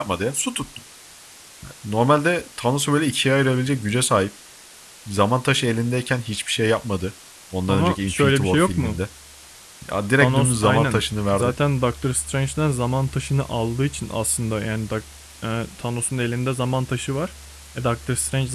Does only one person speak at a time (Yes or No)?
No